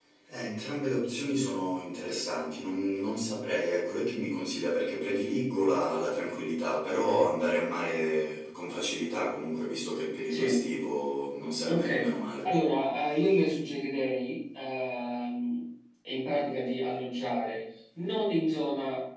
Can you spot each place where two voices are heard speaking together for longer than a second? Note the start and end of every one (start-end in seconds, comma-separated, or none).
none